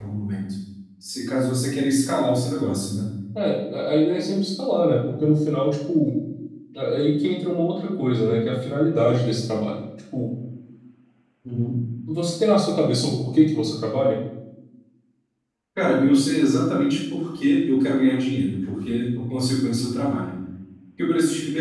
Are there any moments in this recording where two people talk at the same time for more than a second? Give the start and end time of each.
none

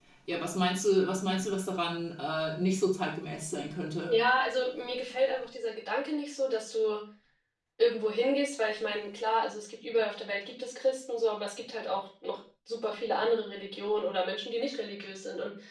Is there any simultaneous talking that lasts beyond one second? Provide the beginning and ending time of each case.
none

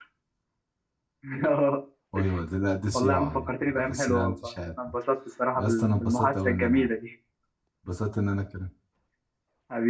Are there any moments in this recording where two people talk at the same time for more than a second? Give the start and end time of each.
2.9-4.5, 5.6-6.9

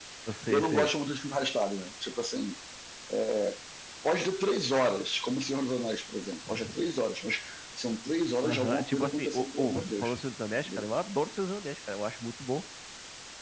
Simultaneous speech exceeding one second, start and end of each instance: 8.4-10.2

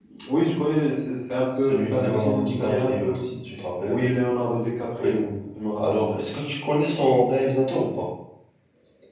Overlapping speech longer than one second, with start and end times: 1.7-3.2

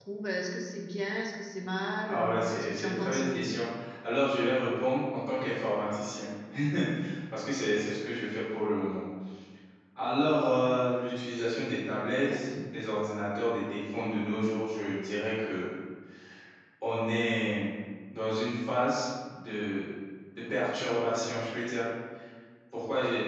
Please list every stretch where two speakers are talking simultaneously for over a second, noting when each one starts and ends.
2.0-3.2

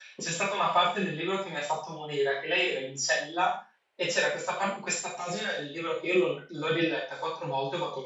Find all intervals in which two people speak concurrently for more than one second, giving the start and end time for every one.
none

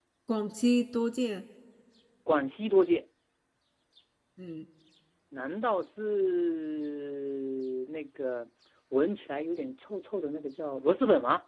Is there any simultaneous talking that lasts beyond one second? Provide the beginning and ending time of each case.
none

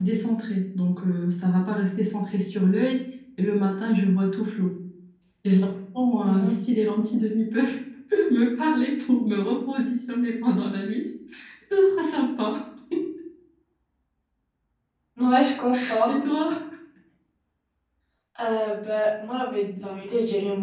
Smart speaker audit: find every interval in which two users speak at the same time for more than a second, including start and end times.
none

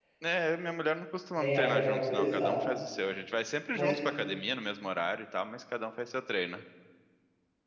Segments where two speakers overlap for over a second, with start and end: 1.4-2.6

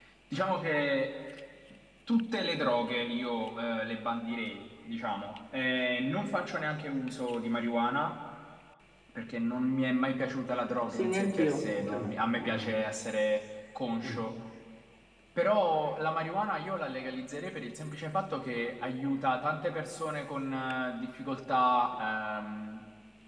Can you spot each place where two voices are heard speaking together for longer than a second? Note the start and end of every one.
10.9-12.8

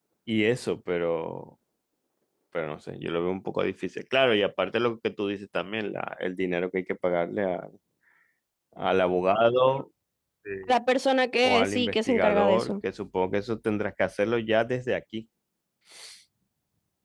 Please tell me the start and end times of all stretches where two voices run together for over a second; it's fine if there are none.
11.4-12.7

